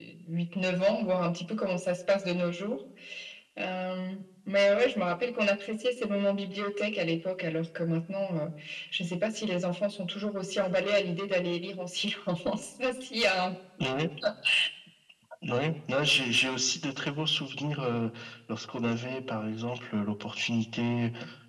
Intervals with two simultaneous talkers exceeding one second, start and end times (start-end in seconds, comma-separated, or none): none